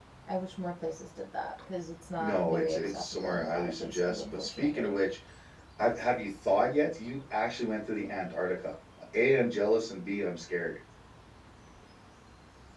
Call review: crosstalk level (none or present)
present